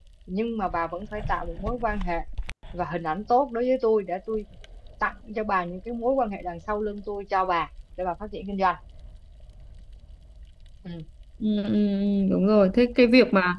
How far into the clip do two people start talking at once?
none

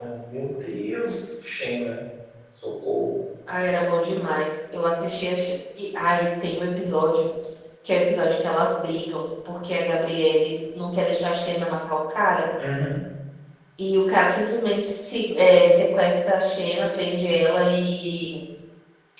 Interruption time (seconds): none

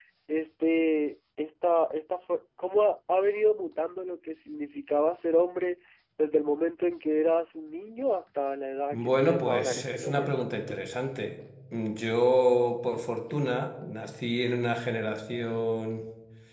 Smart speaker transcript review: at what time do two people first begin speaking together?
8.9 s

